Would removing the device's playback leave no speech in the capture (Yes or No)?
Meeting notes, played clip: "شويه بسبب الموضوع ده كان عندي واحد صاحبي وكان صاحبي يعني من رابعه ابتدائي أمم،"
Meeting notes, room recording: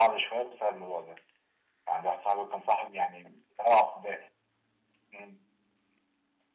Yes